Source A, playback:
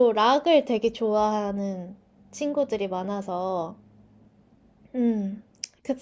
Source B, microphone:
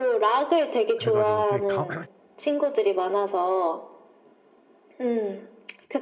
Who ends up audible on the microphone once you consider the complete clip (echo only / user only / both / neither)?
both